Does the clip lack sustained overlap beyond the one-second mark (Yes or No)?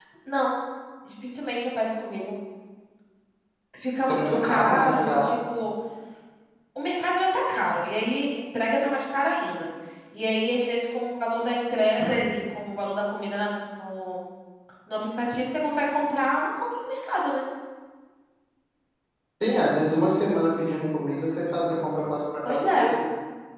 No